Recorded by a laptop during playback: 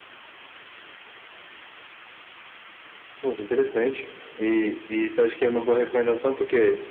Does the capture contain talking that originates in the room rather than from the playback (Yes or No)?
No